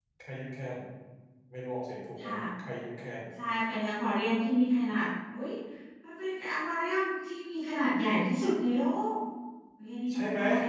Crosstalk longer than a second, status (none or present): none